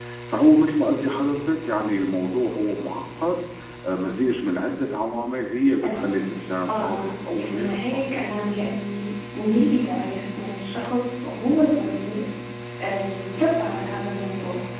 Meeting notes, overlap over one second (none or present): present